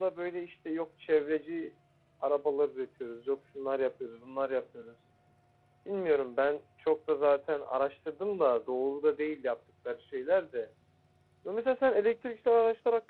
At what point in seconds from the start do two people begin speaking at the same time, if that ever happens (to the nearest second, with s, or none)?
none